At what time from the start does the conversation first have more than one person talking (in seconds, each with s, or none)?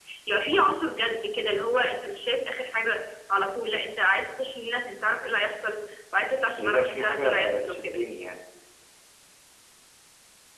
6.5 s